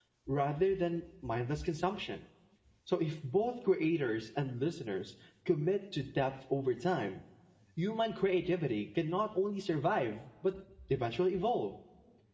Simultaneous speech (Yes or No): No